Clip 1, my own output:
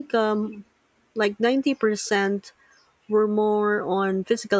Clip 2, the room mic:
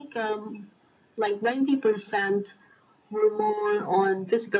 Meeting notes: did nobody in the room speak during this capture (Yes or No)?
Yes